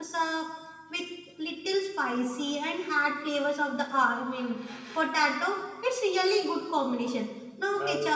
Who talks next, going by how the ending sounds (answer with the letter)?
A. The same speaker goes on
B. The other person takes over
A